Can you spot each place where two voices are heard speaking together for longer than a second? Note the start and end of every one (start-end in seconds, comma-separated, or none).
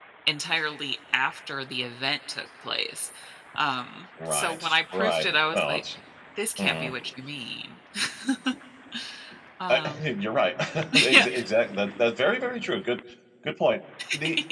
4.3-5.8